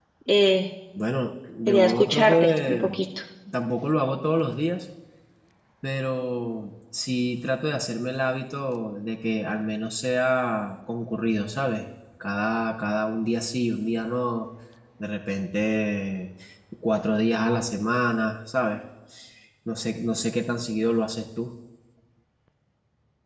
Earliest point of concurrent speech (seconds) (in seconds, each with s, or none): 1.7 s